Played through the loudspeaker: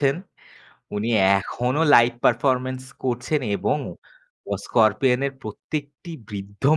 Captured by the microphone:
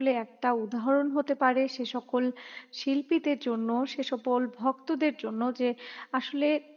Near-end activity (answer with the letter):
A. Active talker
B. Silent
A